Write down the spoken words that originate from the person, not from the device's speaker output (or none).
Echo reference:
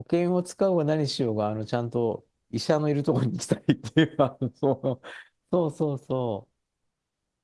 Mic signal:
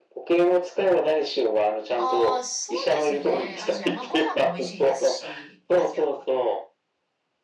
ああ、そうですね。アジア。まあご飯も美味しいですし、アジアは。